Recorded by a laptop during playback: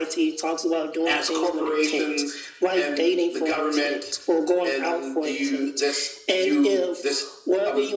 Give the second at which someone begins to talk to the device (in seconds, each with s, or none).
none